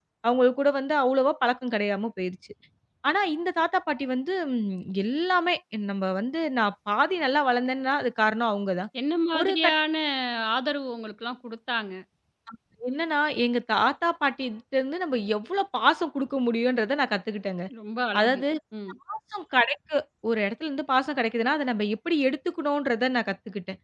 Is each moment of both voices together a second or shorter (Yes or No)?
Yes